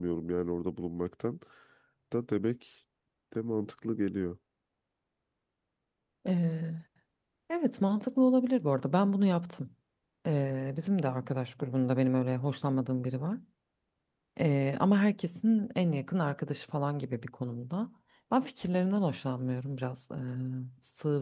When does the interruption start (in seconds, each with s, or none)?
none